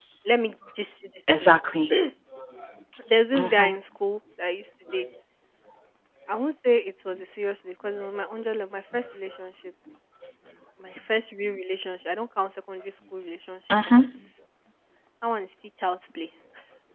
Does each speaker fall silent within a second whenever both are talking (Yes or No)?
Yes